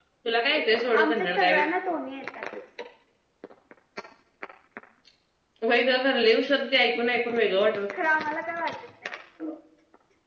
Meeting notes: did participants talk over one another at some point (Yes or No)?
Yes